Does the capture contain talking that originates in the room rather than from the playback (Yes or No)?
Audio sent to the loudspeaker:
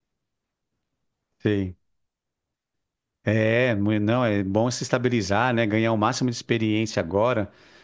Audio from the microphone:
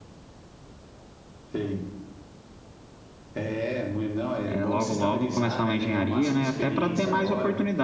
Yes